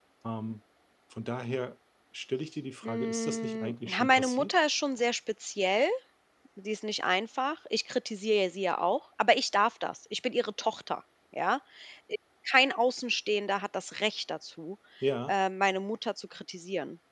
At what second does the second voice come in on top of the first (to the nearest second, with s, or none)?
3 s